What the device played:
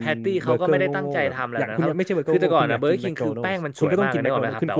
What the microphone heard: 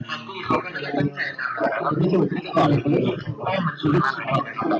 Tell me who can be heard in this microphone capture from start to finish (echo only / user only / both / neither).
echo only